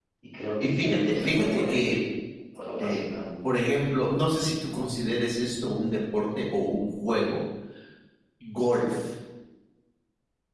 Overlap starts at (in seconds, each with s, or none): 0.6 s